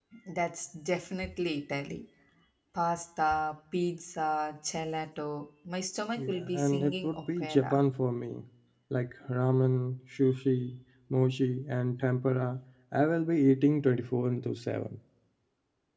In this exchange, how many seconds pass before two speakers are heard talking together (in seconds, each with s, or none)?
6.2 s